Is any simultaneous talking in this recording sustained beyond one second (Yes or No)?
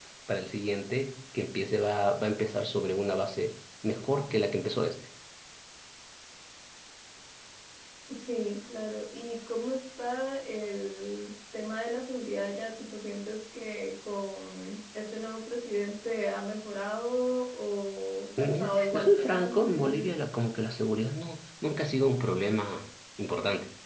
Yes